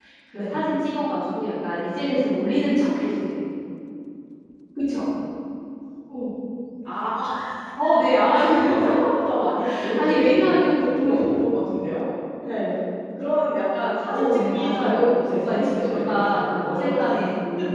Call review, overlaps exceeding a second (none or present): present